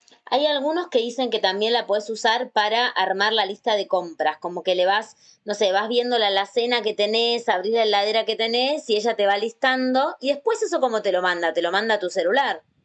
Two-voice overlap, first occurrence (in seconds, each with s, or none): none